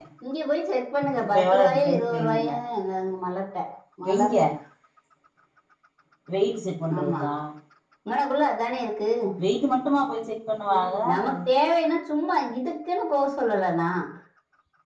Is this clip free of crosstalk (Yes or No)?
No